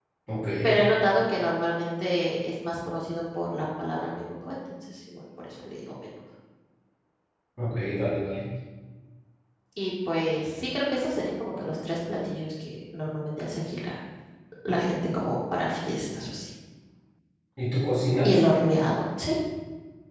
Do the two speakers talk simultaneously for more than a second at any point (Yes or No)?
No